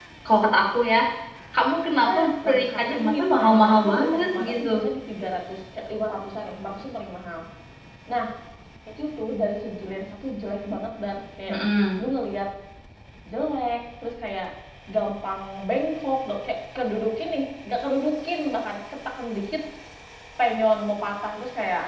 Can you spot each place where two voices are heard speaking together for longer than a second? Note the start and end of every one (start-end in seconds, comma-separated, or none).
2.1-4.7